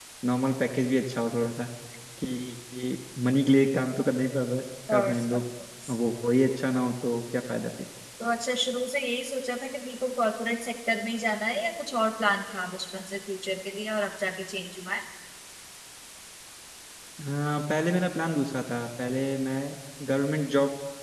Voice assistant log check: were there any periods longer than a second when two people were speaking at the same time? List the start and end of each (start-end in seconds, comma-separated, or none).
none